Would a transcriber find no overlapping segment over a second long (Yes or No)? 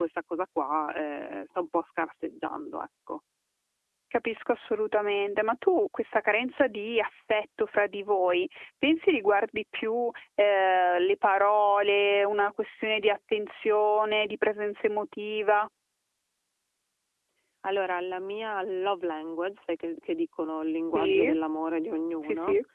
Yes